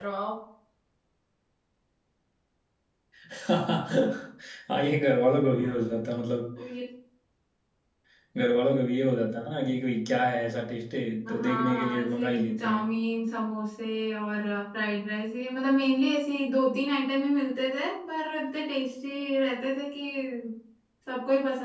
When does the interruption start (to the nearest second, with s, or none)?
11 s